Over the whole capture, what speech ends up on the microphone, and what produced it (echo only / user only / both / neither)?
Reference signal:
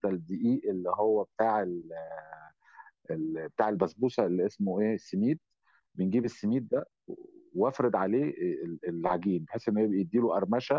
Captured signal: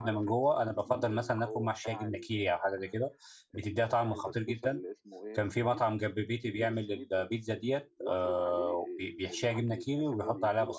both